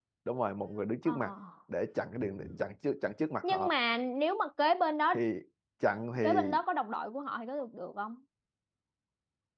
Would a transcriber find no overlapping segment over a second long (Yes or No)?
Yes